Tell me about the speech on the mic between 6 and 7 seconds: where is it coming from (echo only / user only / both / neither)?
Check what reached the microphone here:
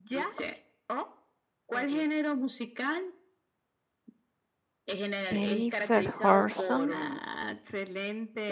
both